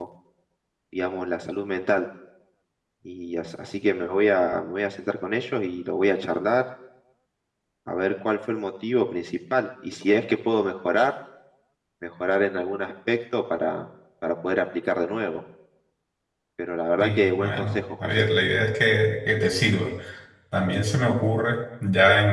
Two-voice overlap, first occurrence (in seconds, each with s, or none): 17.0 s